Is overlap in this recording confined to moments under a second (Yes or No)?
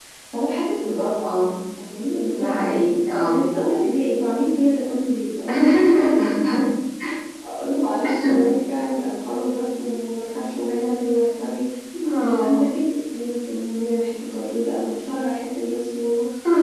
Yes